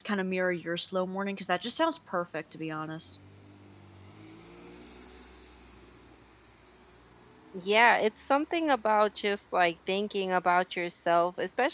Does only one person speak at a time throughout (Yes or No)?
Yes